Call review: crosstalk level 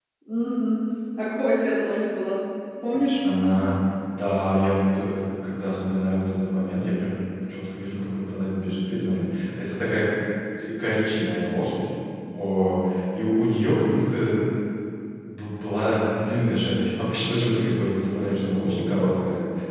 none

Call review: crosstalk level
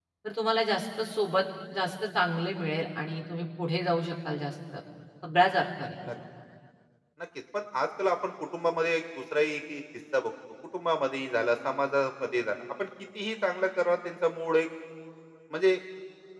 none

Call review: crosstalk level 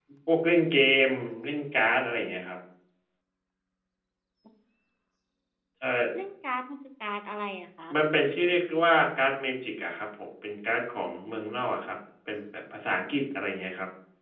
none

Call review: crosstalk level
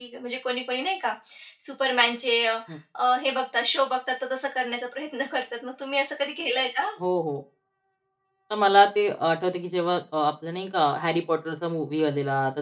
none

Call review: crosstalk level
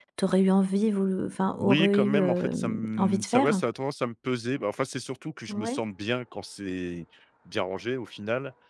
present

